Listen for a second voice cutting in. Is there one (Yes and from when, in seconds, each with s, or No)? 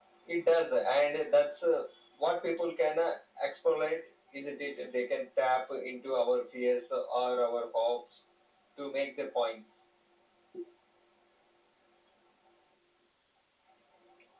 No